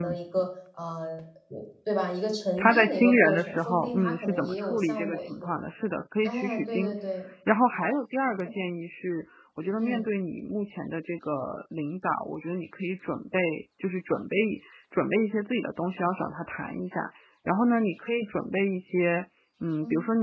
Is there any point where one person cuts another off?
Yes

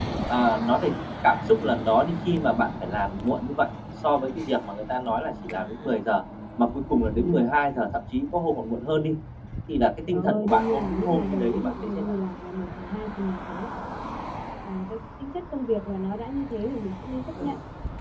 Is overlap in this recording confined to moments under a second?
No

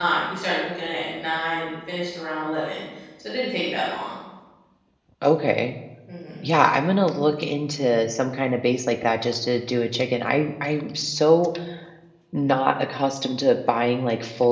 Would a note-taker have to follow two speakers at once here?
No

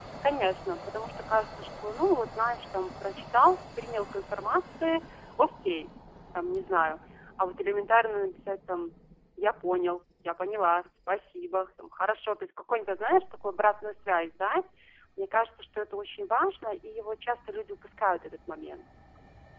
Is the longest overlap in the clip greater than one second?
No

